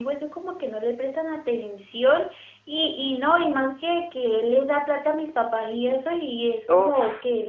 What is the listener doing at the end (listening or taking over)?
listening